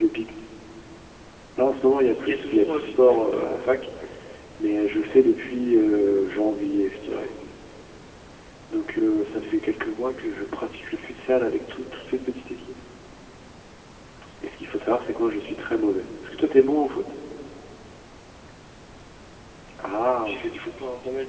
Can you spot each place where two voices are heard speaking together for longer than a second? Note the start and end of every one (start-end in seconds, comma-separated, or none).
2.2-3.5